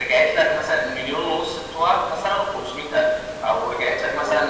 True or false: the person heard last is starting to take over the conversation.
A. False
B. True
A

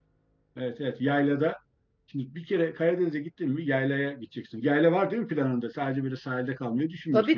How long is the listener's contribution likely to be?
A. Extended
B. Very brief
A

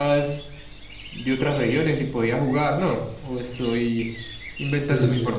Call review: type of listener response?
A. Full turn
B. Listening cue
A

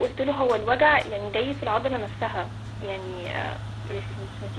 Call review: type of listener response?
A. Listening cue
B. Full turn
A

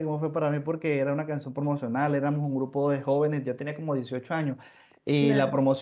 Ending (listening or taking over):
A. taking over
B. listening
B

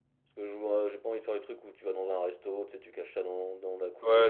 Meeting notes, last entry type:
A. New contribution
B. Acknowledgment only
A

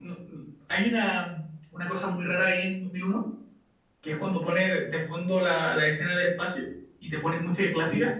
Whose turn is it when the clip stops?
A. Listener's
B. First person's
B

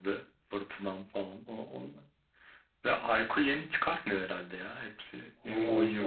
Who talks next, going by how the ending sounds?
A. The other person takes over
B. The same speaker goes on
A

